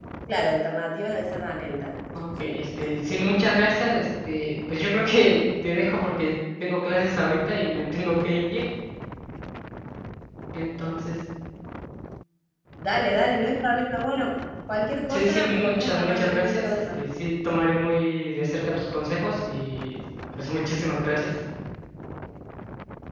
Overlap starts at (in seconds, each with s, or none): 2.4 s